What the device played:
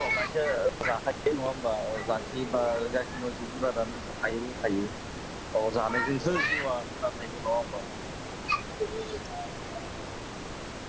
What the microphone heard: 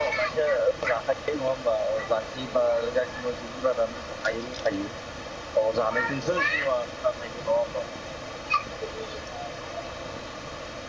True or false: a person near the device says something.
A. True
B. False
B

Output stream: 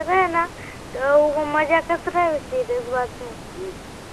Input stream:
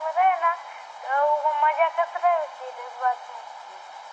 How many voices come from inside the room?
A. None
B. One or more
A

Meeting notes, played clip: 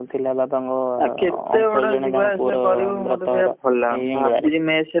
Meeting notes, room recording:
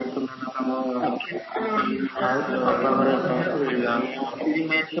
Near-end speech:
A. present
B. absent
A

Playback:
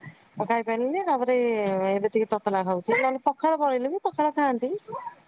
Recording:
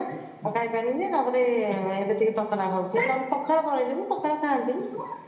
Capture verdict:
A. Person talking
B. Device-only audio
B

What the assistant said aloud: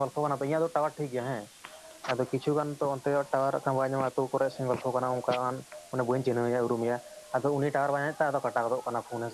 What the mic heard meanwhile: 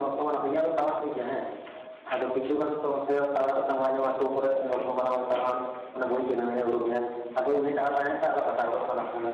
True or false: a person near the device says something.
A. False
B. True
A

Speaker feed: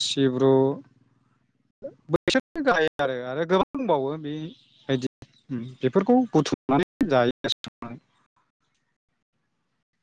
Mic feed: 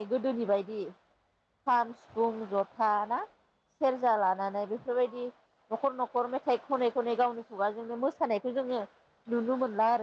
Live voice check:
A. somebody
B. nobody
A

